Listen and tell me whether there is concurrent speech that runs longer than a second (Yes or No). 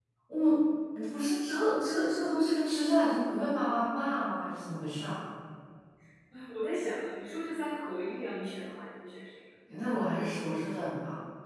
No